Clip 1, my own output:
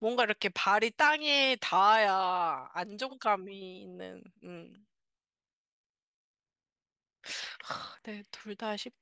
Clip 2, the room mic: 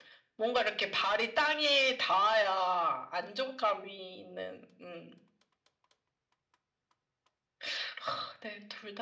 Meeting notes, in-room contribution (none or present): none